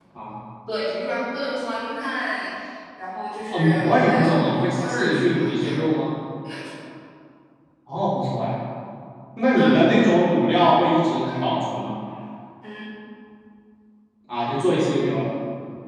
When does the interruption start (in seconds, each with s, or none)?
3.5 s